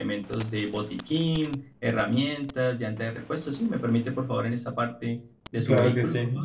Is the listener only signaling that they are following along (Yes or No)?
No